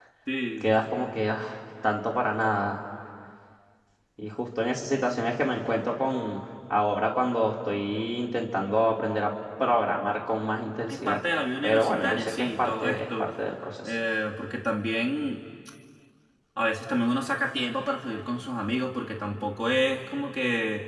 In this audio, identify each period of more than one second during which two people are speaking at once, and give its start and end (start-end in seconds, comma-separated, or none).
11.6-13.3